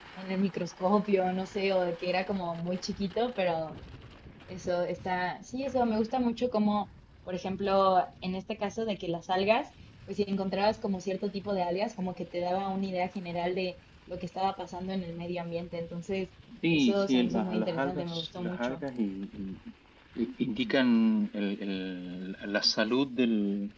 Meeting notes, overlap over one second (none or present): present